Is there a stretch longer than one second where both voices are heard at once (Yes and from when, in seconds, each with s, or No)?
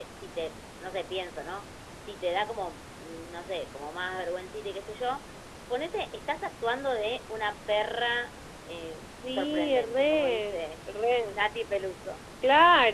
Yes, from 9.3 s